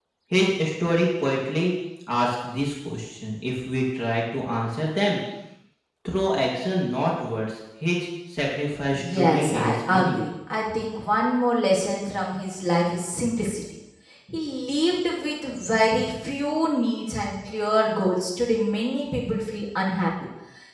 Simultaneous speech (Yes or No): Yes